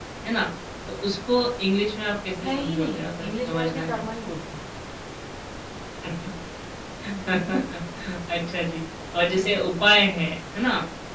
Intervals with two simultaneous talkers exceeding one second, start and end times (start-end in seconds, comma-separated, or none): 2.4-4.0